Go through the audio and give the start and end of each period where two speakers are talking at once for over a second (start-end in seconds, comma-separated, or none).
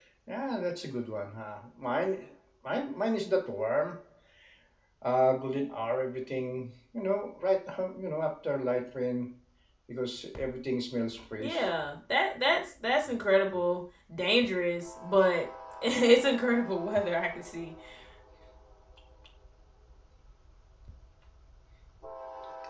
none